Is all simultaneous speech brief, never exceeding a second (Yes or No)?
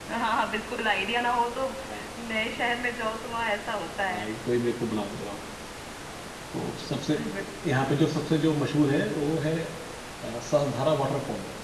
Yes